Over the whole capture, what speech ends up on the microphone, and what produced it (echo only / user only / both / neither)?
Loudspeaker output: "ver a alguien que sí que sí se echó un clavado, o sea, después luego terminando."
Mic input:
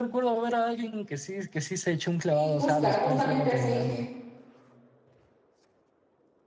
both